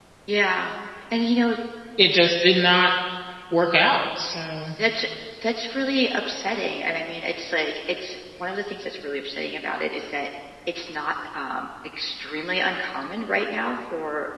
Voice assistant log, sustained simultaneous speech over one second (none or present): none